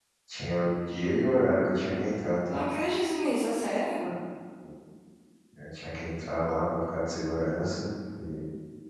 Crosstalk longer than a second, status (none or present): none